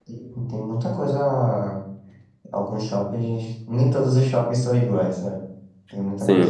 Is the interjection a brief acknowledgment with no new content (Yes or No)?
No